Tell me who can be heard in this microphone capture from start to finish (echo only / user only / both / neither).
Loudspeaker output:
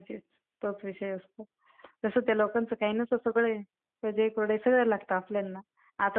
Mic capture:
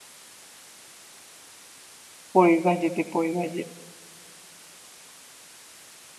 user only